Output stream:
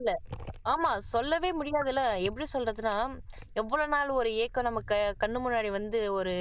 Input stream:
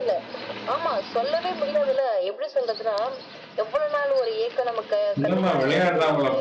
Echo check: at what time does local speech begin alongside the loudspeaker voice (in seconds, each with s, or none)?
5.2 s